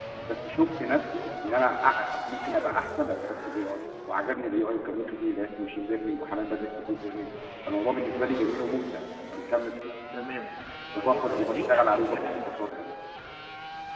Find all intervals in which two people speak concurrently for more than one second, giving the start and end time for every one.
11.0-12.5

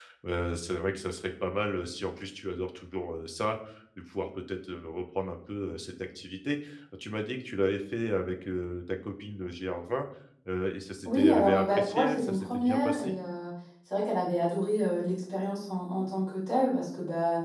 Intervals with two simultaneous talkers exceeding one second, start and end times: 11.1-13.2

